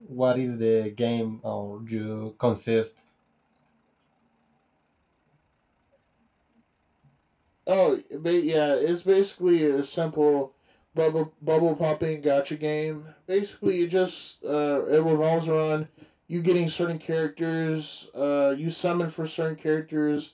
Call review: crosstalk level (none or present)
none